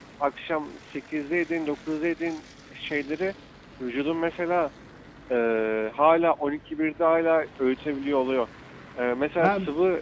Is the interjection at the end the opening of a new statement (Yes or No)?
No